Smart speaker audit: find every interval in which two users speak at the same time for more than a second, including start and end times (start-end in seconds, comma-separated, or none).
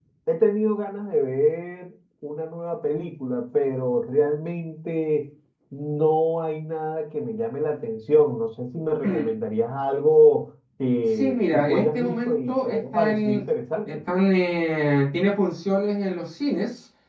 11.2-13.4